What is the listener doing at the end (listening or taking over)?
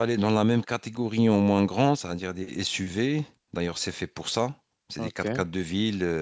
listening